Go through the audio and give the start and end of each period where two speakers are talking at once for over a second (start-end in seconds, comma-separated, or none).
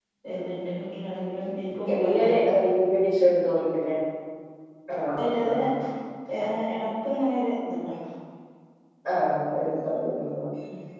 none